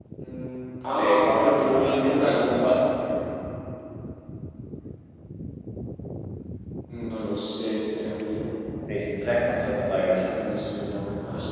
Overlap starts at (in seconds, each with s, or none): 1.0 s